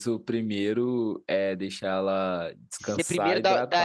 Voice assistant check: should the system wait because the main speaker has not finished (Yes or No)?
No